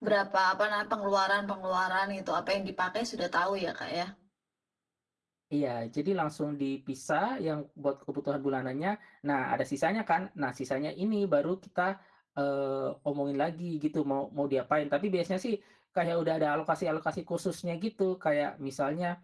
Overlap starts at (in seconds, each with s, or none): none